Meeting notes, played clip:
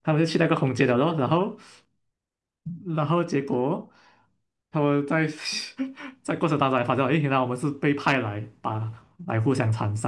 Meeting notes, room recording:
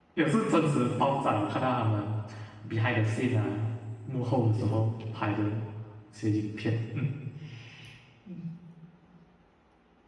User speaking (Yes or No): Yes